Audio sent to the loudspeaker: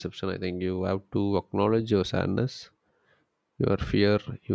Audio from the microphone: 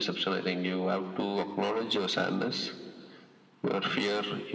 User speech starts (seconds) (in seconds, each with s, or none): none